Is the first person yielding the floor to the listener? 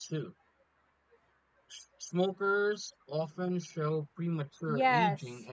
Yes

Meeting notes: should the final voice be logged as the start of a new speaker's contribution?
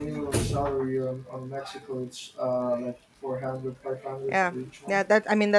Yes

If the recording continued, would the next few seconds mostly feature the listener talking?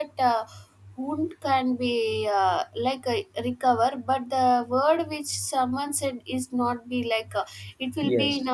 No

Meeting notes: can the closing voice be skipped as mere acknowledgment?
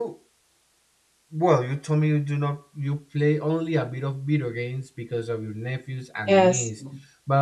Yes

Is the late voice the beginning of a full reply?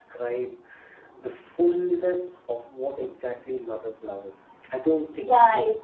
Yes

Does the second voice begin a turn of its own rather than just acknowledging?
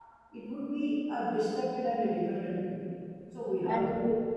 No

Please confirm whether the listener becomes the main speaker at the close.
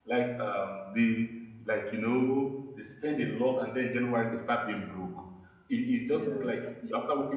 No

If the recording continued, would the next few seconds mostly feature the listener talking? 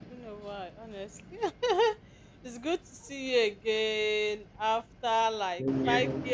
No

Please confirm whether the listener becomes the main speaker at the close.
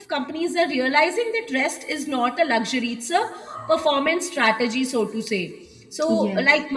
No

